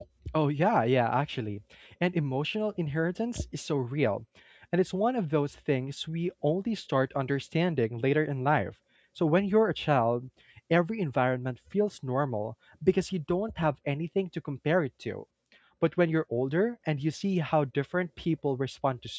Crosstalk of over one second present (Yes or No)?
No